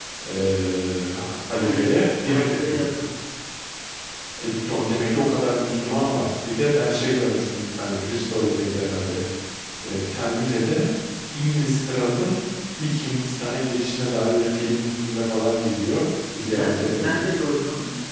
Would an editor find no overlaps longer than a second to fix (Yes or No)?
No